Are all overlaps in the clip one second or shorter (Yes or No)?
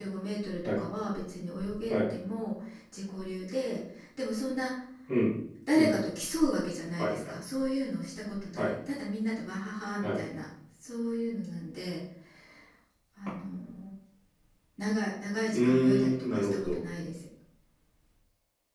No